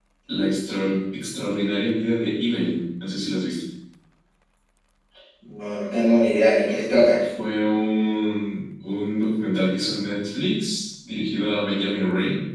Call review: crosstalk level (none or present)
none